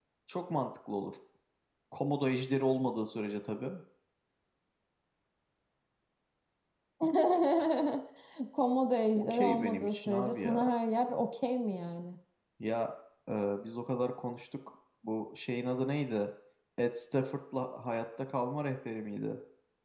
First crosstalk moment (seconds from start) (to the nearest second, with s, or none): 9 s